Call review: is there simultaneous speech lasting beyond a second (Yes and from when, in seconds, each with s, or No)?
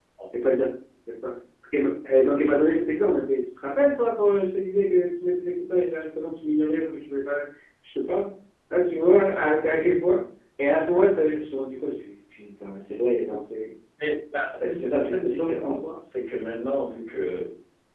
Yes, from 14.6 s